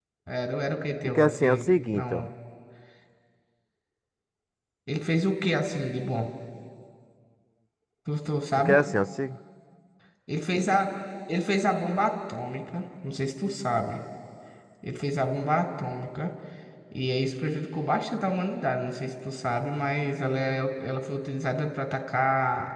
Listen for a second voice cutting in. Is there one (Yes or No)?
Yes